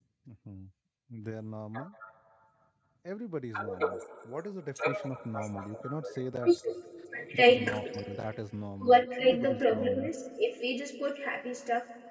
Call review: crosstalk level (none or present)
present